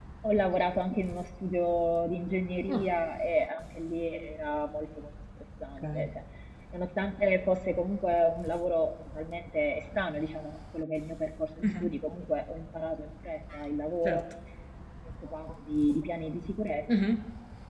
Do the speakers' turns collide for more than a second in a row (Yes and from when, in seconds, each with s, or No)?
No